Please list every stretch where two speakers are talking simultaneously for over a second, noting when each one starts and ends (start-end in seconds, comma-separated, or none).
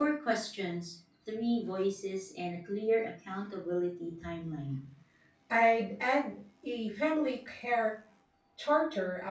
none